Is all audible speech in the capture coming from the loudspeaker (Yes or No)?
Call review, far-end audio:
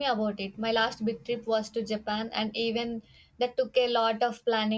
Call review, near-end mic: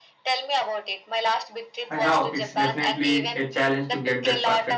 No